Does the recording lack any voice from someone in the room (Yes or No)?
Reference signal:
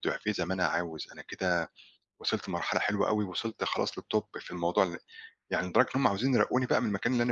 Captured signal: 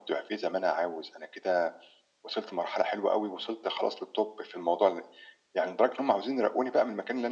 Yes